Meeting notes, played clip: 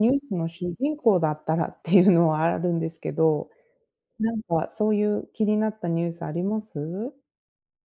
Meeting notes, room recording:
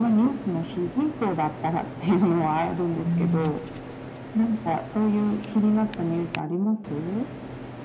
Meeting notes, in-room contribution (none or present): present